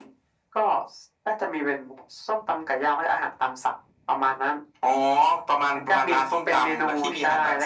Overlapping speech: Yes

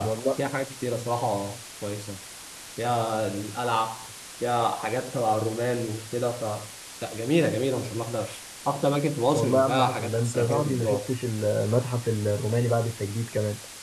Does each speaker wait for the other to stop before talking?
No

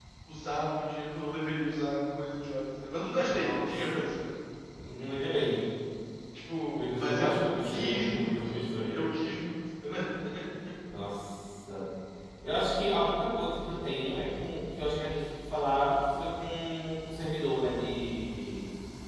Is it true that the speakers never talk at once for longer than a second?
No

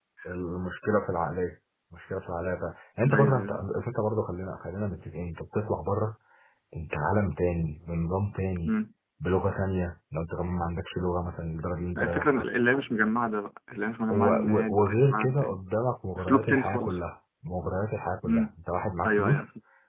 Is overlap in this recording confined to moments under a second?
No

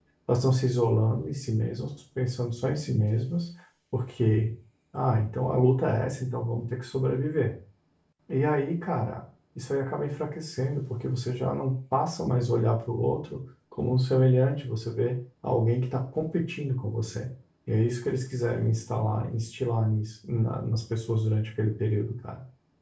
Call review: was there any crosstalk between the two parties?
No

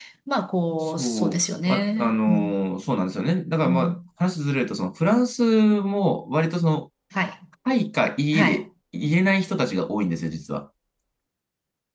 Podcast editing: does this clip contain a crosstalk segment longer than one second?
Yes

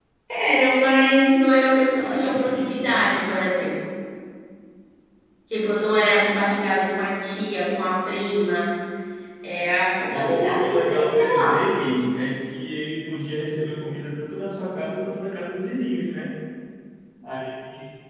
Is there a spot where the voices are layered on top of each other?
Yes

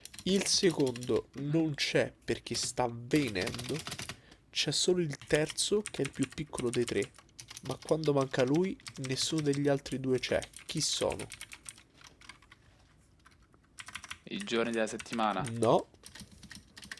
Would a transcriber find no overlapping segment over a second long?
Yes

